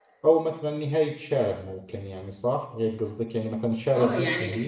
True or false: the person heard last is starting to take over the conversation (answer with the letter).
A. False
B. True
B